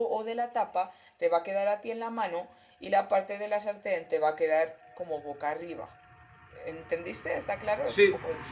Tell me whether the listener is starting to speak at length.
Yes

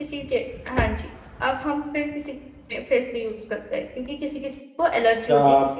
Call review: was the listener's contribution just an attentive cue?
No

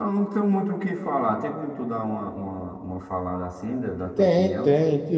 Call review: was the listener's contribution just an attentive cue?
No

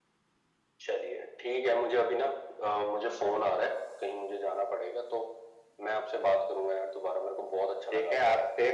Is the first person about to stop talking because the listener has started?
Yes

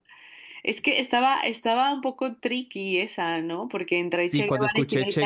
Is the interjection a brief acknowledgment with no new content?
No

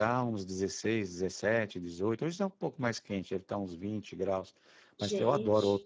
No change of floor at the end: Yes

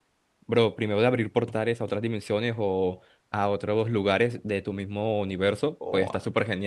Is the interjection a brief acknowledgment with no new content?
No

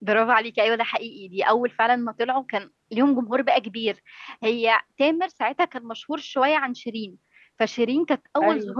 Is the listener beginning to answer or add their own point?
No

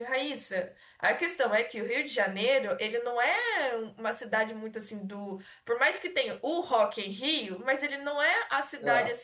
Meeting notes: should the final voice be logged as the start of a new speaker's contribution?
No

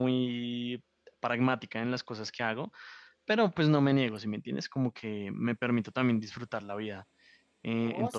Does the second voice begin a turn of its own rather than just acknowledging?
Yes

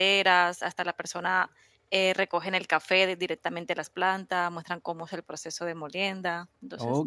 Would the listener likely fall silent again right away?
No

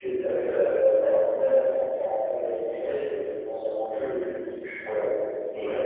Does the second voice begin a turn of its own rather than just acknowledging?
No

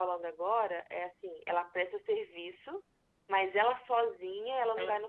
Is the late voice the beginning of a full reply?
No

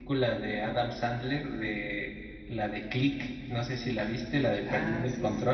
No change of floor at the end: No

